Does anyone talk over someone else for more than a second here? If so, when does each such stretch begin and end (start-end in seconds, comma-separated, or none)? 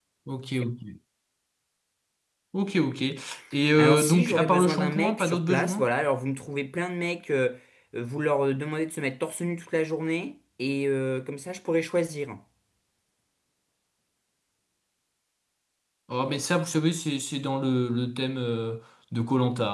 3.8-5.9